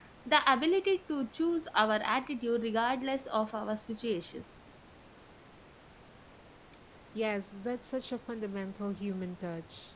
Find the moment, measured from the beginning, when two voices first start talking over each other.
none

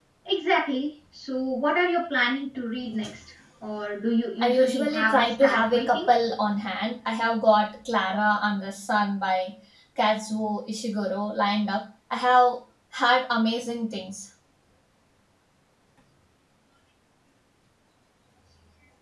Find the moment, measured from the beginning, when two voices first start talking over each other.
4.4 s

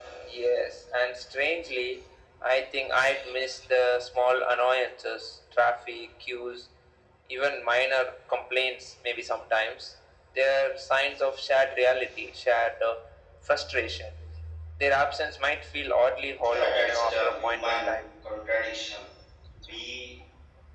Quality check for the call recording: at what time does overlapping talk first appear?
16.4 s

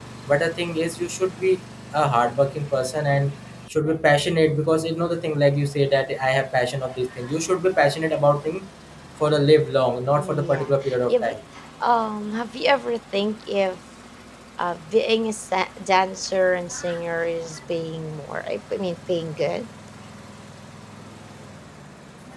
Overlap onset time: 10.1 s

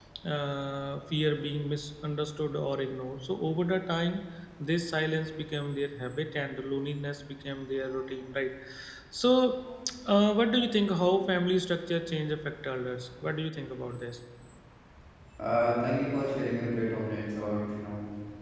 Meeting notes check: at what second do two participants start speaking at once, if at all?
none

